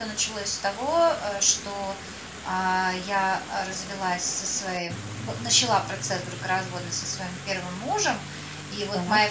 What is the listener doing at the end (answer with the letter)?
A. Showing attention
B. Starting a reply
A